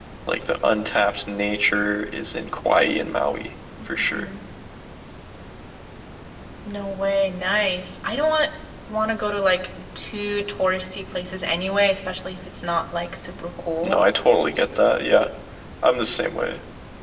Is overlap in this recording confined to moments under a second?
Yes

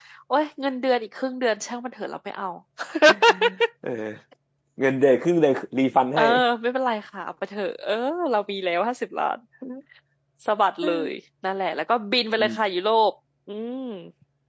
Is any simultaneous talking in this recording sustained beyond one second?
No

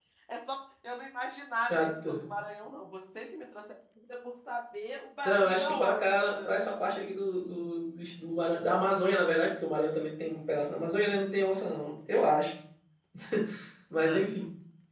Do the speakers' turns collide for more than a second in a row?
Yes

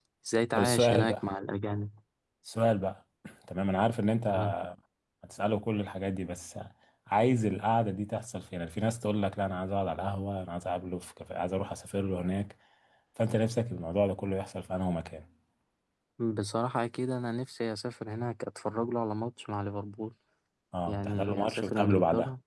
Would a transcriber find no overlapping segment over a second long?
No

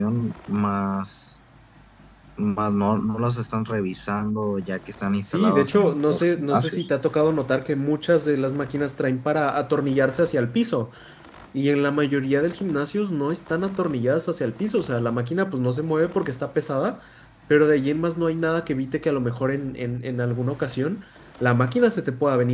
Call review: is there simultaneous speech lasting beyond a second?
Yes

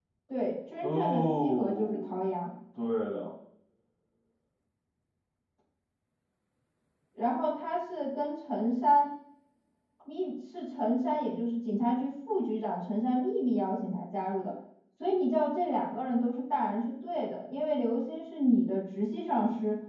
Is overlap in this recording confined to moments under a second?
No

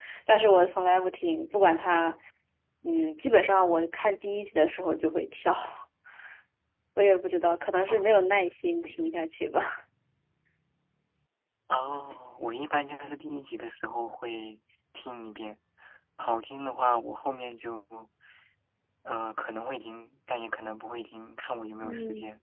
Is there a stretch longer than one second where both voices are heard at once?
No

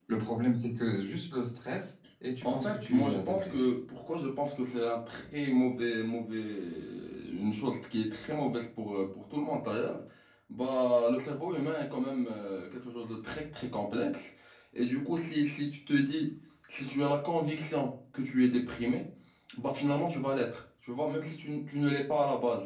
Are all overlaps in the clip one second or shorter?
No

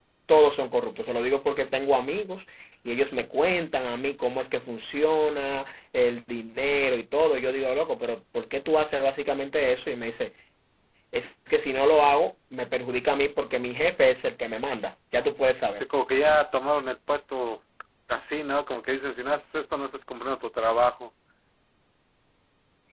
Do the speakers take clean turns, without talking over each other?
Yes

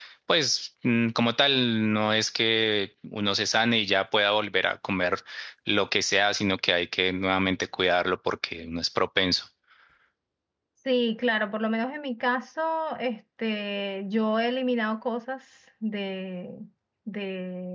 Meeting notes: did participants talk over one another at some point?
No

